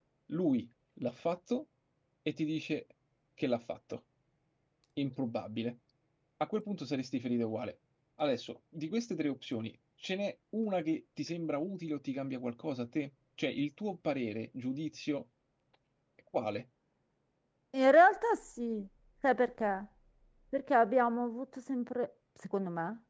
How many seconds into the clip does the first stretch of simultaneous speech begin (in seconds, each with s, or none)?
none